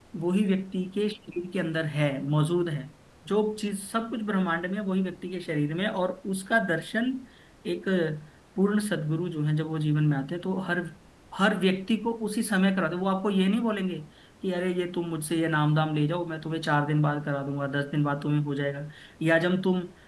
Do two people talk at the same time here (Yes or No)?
No